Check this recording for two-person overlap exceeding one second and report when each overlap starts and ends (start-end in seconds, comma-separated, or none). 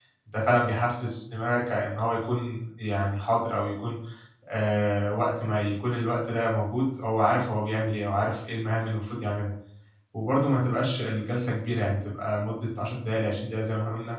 none